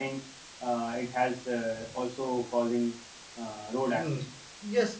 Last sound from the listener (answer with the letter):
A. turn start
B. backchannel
A